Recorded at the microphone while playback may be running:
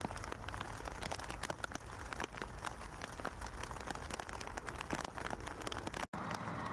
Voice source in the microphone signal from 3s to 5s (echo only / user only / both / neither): neither